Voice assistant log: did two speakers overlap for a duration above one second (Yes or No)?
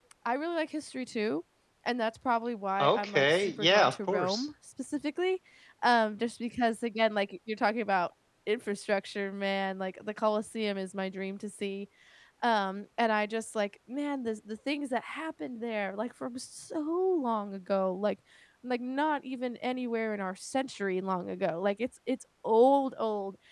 Yes